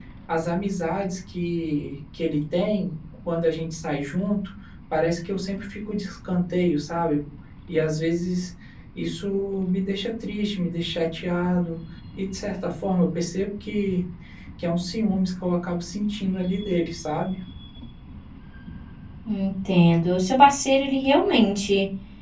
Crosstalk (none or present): none